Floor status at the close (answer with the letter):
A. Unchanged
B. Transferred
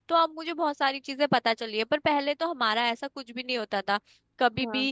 A